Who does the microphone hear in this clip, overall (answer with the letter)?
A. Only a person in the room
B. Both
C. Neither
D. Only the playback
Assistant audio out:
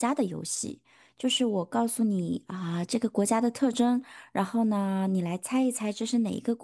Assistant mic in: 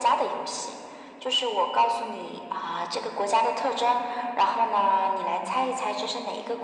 D